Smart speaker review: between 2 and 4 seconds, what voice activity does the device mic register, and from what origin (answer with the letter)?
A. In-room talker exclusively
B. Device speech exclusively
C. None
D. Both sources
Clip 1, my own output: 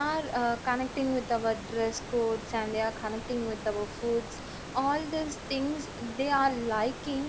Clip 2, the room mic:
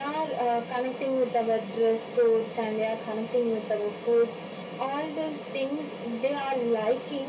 B